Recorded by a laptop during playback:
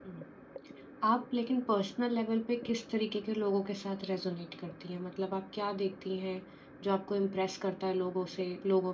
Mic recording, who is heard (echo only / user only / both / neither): user only